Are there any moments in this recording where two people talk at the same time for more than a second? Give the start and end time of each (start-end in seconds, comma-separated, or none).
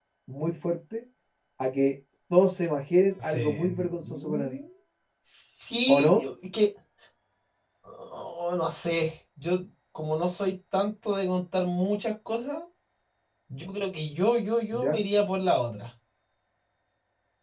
3.2-4.6